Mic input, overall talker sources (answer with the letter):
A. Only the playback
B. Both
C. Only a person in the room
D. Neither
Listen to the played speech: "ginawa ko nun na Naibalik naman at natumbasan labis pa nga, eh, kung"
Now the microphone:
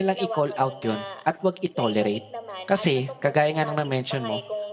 B